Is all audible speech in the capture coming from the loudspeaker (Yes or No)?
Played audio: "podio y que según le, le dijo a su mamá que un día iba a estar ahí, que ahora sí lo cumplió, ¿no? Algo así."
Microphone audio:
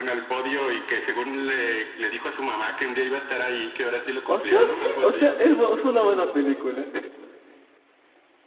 No